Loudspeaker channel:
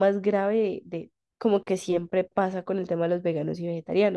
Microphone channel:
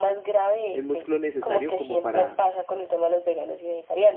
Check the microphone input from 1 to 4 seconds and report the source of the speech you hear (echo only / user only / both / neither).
both